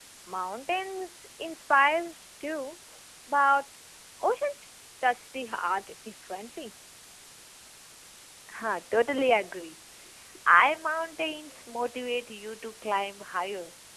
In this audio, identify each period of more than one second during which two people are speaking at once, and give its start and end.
none

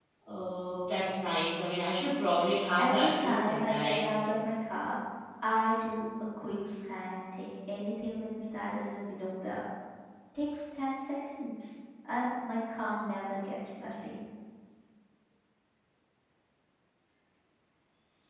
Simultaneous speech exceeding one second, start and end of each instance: 2.8-4.1

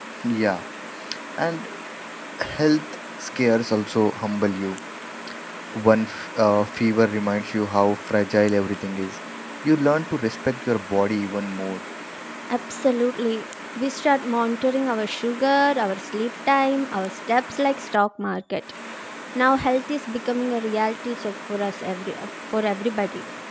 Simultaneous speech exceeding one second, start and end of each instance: none

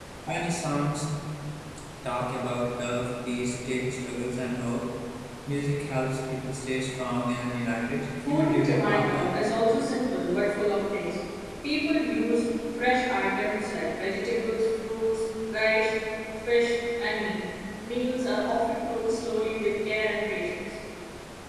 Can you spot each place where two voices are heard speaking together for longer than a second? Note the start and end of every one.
8.2-9.5

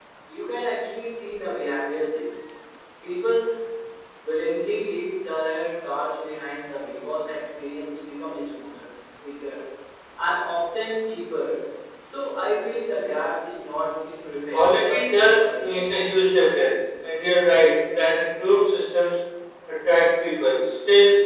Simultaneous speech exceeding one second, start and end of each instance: 14.5-15.8

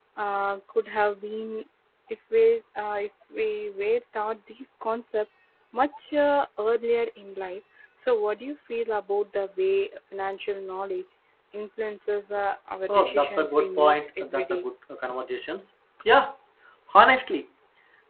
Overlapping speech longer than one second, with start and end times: 12.9-14.7

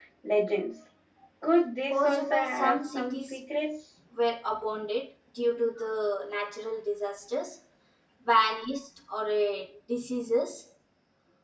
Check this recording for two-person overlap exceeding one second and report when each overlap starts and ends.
1.9-3.4

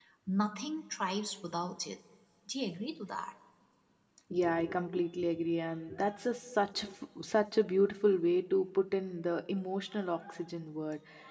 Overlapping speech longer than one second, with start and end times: none

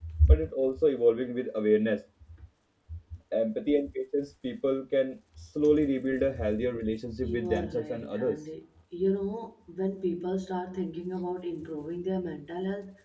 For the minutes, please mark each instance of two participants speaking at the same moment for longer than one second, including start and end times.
7.1-8.4

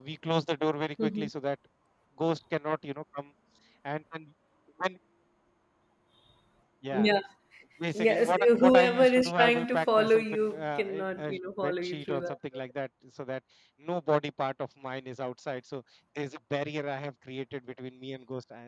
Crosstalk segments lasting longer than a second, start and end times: 7.9-12.3

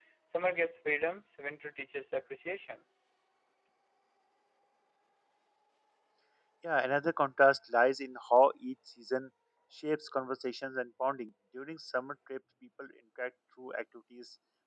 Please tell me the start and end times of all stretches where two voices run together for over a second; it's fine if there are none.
none

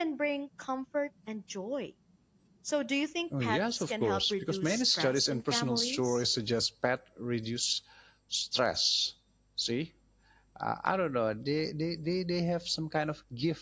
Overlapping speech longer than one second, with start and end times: 3.4-6.2

